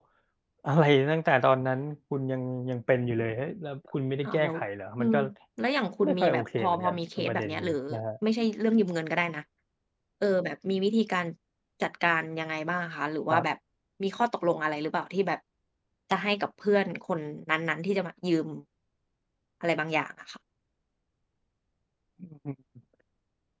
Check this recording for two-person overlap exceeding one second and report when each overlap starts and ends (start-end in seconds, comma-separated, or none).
6.0-7.8